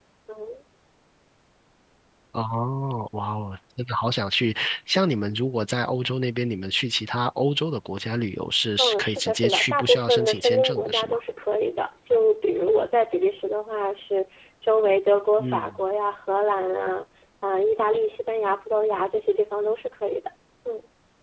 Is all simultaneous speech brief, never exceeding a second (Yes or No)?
No